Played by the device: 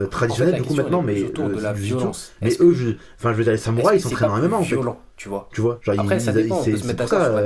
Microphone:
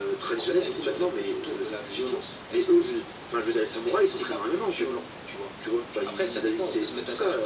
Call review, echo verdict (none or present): present